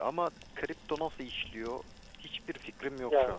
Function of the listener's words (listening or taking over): taking over